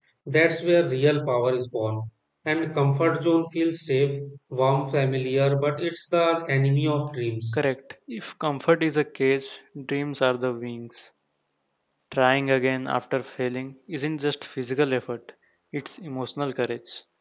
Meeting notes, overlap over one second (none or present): none